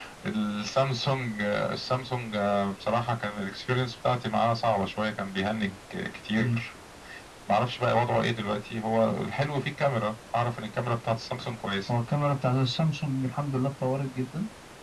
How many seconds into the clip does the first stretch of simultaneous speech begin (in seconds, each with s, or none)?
none